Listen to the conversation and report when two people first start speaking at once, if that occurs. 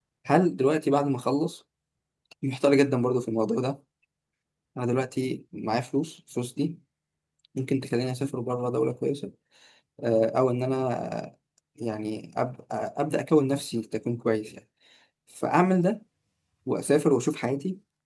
none

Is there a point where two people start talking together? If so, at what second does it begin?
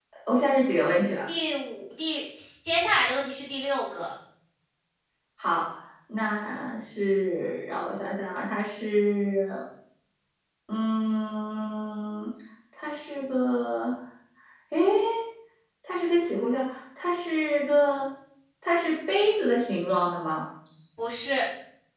none

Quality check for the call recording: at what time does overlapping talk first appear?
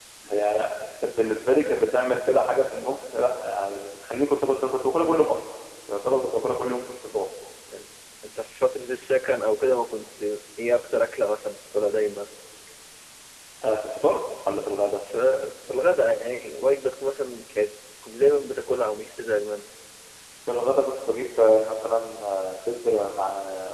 none

